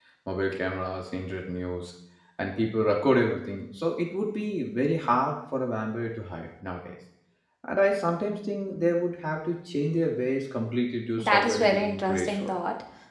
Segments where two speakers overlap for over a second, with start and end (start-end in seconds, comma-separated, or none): 11.2-12.5